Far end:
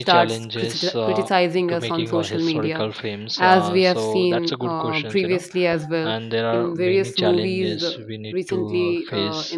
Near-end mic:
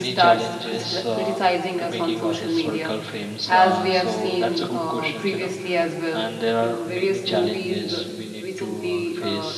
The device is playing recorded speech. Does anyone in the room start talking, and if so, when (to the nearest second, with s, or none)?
none